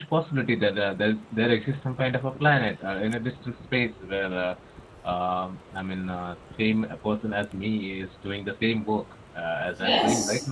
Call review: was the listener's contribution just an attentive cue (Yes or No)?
No